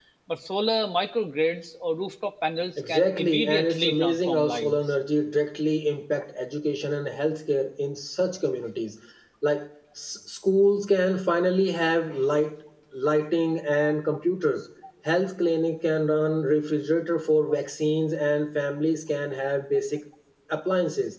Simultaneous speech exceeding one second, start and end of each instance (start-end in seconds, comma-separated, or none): 2.8-4.8